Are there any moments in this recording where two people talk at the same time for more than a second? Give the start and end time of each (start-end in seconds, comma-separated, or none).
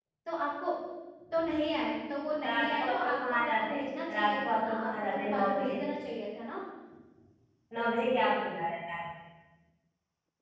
2.4-3.8, 4.1-5.8